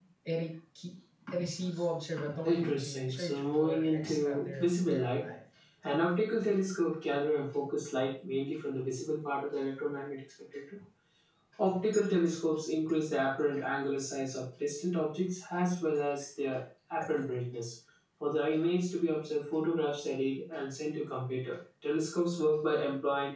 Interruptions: present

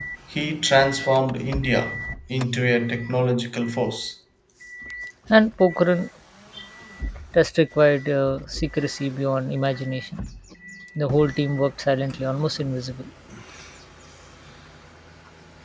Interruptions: none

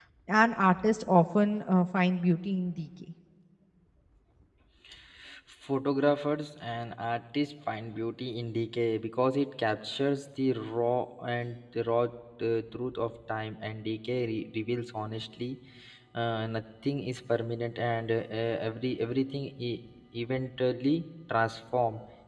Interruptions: none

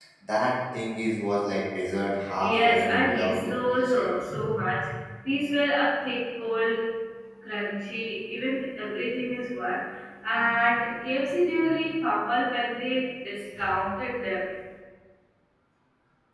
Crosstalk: present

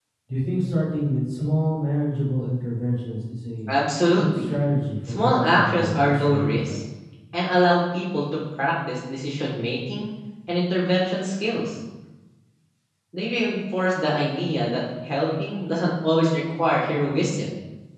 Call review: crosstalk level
present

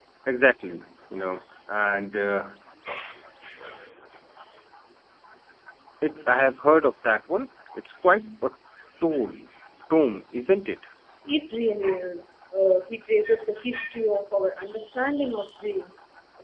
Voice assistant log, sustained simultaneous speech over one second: none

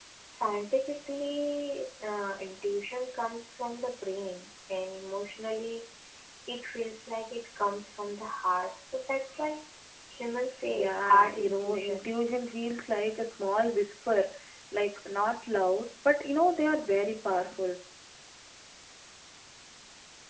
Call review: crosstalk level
present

